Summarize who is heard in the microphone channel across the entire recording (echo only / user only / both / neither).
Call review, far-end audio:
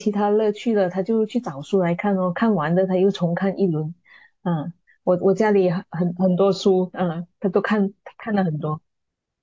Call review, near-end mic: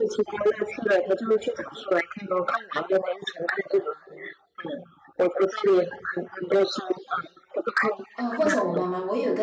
both